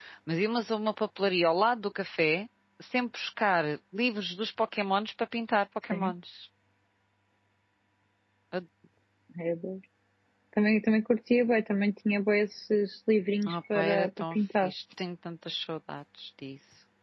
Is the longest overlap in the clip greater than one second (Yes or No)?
Yes